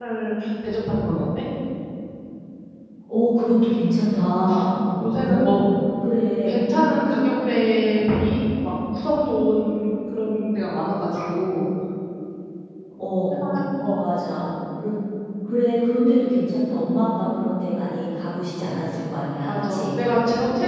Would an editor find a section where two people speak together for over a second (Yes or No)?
No